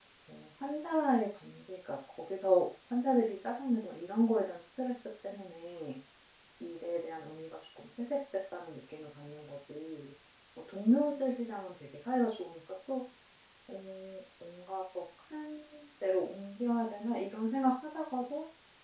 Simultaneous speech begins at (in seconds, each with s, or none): none